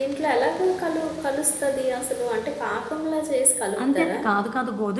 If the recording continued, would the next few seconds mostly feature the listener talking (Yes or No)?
Yes